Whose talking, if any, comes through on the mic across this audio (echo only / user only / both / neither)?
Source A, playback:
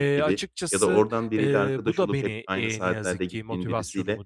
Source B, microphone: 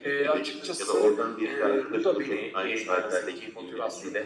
echo only